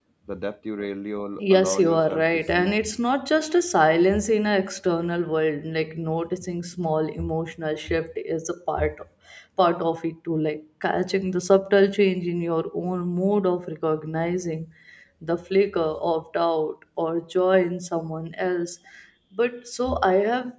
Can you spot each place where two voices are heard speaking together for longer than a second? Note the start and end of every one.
1.4-2.8

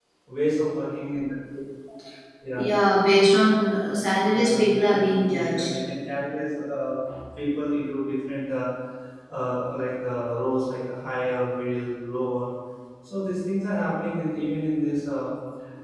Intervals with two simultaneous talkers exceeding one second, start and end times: 4.3-5.8

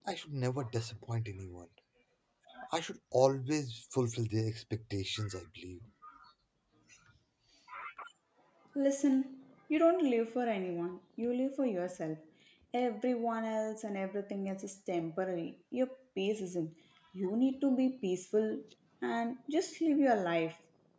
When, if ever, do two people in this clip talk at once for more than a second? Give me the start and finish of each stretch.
none

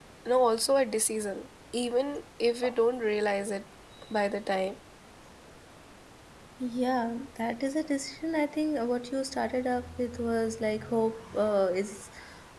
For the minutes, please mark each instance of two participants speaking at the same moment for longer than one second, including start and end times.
none

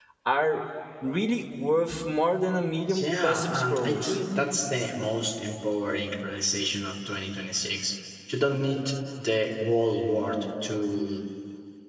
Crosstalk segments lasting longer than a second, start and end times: 3.0-4.2

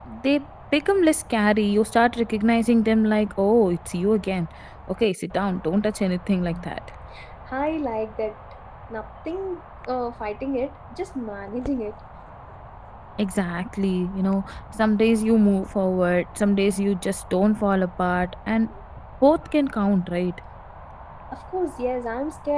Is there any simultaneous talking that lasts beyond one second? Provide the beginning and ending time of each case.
none

